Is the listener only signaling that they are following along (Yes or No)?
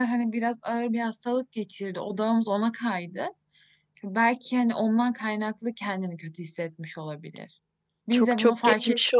No